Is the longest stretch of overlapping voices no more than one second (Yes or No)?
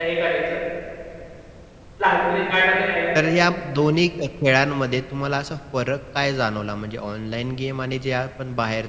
Yes